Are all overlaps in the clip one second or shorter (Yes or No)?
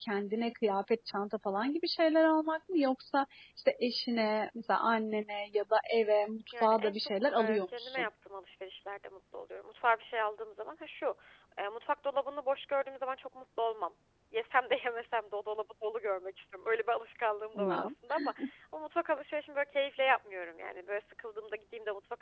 No